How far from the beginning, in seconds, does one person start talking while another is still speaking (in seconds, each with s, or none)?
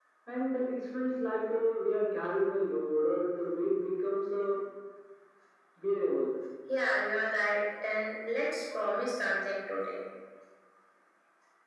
none